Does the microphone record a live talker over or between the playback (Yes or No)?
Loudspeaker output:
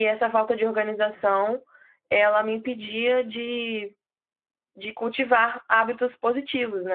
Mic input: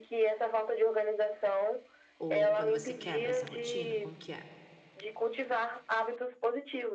Yes